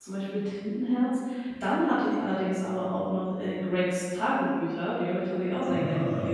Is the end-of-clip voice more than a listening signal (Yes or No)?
Yes